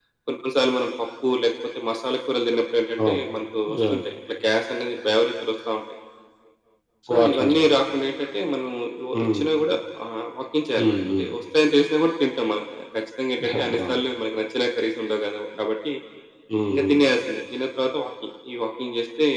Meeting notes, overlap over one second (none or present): none